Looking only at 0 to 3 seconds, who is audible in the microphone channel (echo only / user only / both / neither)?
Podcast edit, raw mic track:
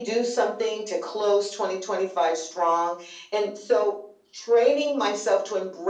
echo only